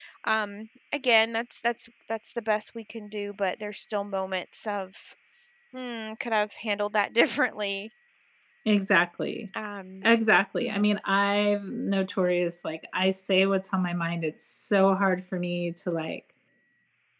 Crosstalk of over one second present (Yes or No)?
No